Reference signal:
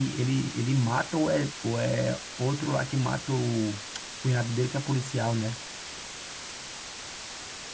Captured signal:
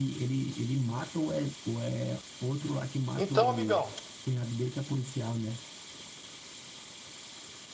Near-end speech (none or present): present